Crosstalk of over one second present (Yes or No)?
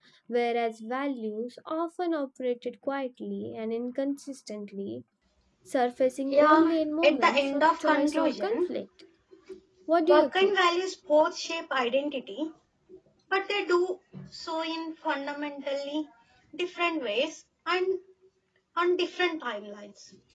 Yes